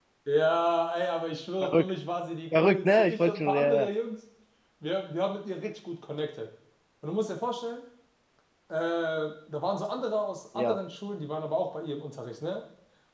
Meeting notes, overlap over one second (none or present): present